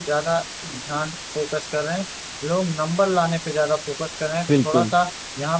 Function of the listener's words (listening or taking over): listening